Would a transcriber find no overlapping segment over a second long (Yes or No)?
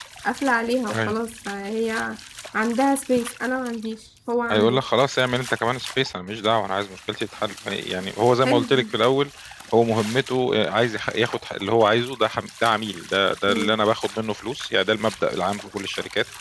Yes